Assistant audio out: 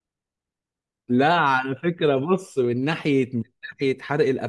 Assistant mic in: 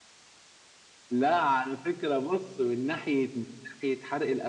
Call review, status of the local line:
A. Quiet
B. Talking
A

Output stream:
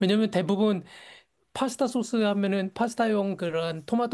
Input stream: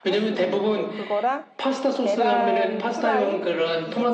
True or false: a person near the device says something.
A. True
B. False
A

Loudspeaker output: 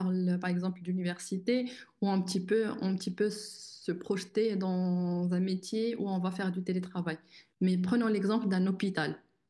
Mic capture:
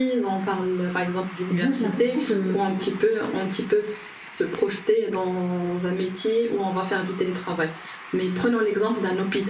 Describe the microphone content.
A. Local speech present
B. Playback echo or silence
A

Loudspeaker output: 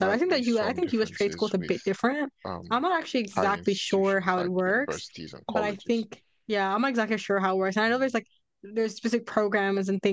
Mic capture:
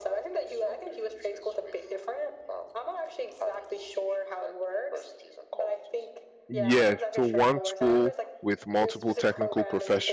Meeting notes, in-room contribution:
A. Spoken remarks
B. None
A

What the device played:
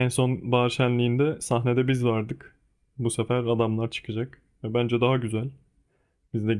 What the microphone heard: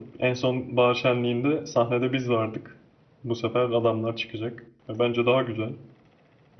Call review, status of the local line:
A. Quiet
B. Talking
A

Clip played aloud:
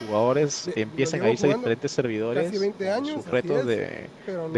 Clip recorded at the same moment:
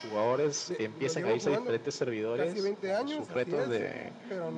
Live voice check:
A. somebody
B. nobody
A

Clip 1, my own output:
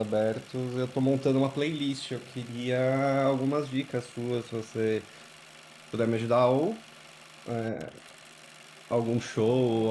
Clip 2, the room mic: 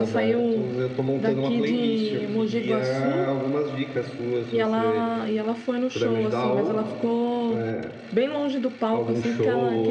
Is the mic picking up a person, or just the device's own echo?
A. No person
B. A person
B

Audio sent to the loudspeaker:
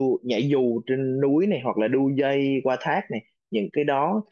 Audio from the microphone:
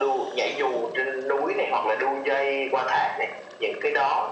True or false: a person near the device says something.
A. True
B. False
B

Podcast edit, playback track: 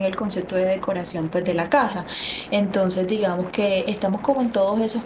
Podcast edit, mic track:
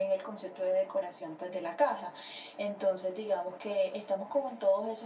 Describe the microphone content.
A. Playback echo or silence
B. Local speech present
A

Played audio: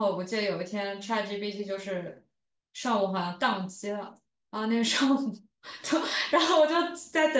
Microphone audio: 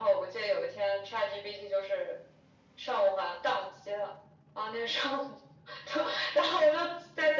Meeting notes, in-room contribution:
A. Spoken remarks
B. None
B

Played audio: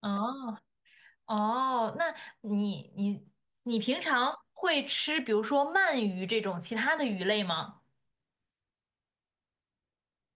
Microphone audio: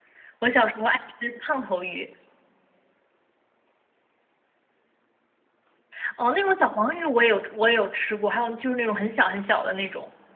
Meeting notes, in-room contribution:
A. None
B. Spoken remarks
B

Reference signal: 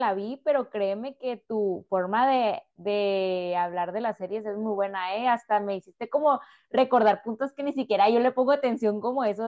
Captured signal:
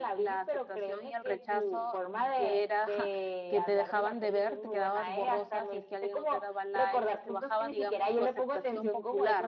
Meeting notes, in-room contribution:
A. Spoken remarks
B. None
A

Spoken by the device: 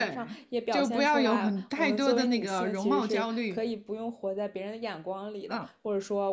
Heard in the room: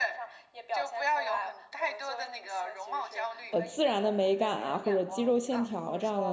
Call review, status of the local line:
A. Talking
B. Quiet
A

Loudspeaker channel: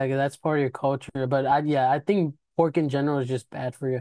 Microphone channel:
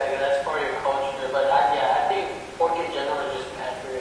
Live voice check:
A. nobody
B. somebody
A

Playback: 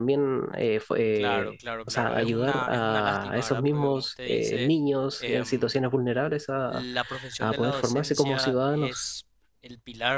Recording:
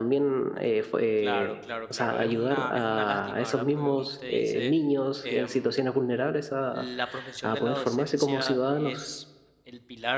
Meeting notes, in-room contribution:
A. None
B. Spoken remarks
A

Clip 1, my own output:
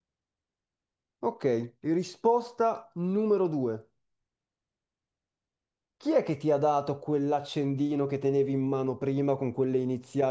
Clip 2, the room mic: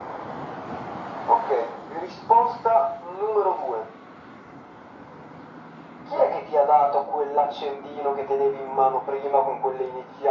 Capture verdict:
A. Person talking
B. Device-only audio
B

